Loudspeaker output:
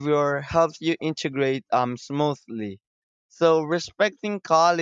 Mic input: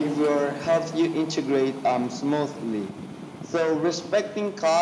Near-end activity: none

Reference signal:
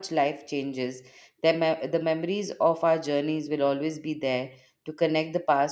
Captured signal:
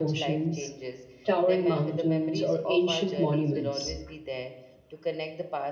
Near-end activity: present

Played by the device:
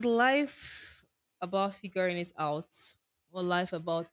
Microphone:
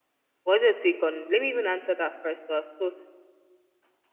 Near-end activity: present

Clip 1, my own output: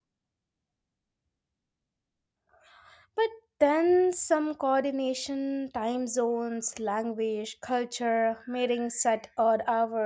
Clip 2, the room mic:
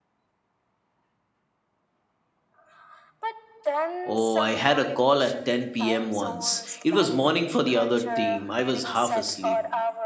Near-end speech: present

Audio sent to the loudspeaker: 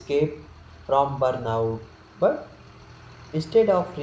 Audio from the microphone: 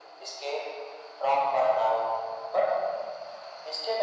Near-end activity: none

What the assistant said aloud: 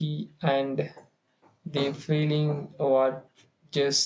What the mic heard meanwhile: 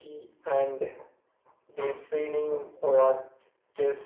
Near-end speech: none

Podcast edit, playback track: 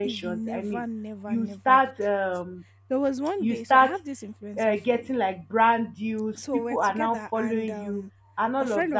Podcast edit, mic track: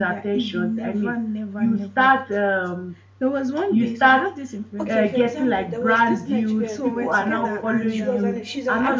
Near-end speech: present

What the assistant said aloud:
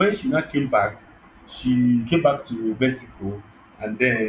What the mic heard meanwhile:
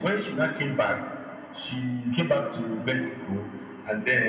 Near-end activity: none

